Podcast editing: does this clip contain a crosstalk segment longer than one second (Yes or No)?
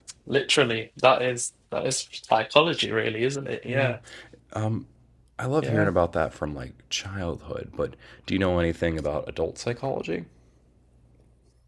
No